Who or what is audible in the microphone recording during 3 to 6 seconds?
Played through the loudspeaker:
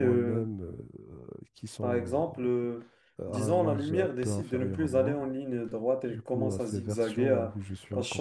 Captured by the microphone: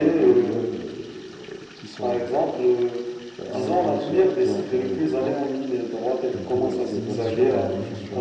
echo only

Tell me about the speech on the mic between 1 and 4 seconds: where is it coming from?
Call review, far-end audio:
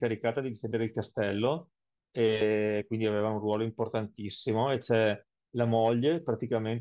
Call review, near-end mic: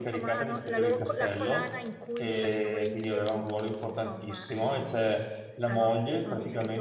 both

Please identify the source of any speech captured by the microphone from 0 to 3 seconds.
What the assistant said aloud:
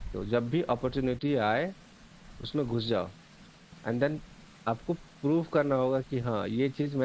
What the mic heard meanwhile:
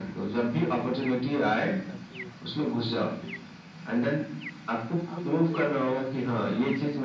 both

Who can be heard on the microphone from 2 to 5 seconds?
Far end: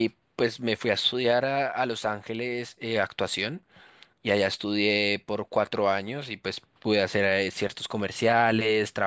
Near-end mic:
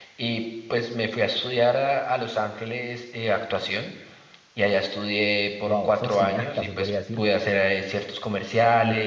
echo only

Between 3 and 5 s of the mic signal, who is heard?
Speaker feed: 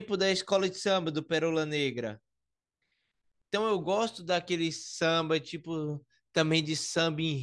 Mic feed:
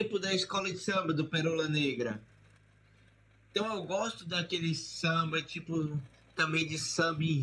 echo only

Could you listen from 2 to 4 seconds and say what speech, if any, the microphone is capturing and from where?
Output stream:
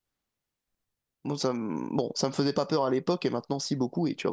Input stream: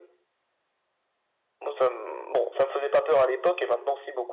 echo only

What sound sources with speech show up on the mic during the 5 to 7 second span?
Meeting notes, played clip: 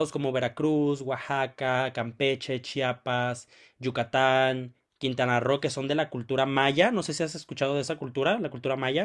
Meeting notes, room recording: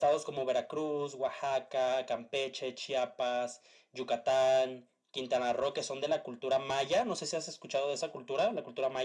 echo only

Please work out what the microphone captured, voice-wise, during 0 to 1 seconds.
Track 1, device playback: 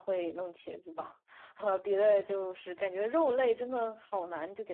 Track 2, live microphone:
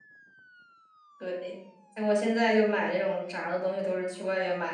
neither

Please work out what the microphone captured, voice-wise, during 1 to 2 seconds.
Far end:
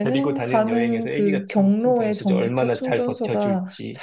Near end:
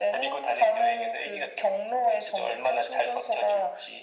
echo only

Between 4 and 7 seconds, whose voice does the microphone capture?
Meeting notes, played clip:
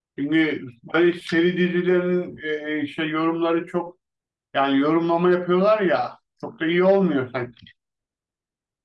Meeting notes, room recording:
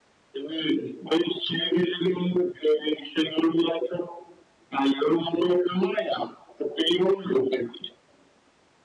echo only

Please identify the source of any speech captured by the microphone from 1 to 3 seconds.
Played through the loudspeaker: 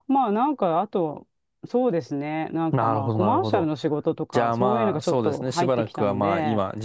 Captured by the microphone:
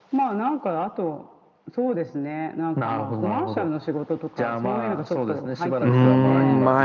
echo only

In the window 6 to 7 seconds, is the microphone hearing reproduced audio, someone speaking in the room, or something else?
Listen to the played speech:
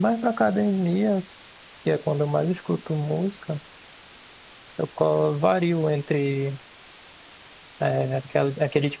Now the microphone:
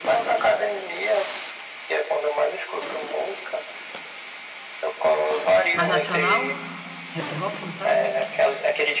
both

